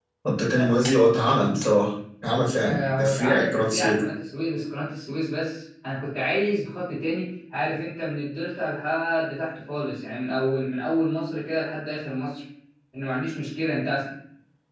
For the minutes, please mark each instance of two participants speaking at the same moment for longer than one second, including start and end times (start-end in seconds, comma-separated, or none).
2.6-4.0